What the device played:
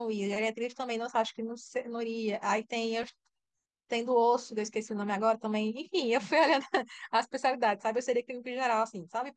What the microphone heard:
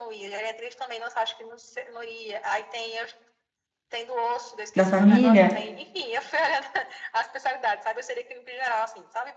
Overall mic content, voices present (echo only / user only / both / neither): both